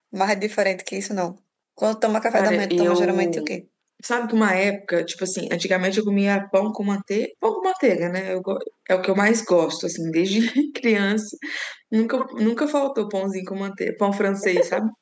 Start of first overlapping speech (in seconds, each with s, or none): 2.3 s